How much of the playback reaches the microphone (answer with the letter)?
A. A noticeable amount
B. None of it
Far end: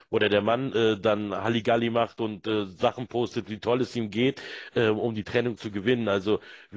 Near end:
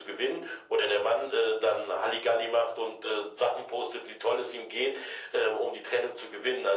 A